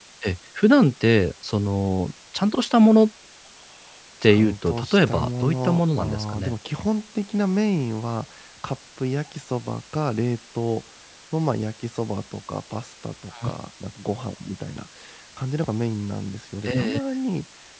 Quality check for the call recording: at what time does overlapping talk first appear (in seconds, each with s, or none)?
4.2 s